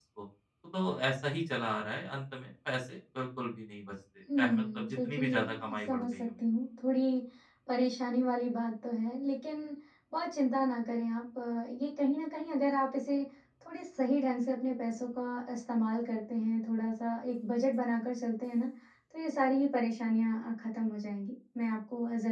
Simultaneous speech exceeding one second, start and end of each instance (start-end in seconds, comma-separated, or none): 4.4-6.3